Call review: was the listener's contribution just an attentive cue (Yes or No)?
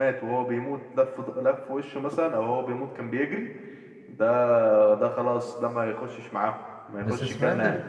No